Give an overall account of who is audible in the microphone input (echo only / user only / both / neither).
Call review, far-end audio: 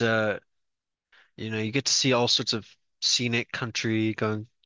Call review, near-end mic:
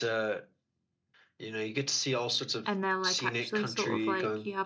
both